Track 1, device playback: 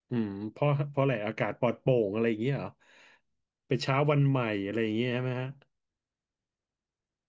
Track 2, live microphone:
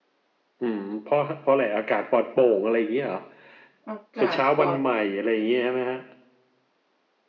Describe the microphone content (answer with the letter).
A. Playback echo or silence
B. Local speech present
B